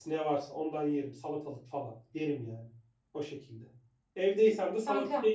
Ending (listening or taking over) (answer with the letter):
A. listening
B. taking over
B